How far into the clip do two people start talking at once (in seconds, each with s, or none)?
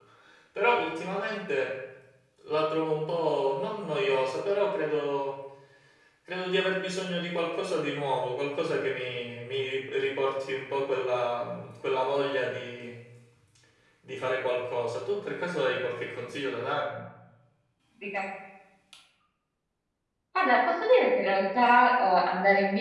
none